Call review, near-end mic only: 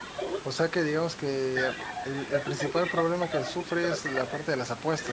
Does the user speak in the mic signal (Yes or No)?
Yes